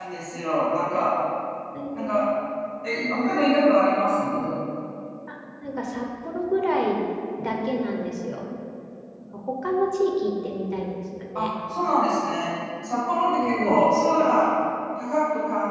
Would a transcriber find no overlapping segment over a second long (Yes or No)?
Yes